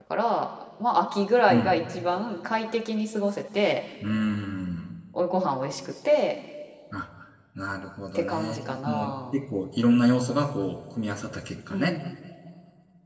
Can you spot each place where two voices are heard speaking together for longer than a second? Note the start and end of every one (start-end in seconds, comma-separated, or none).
8.2-9.3